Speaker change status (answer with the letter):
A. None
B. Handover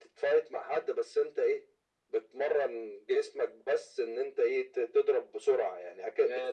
B